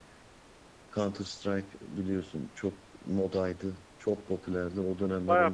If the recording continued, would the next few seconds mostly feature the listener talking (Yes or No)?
Yes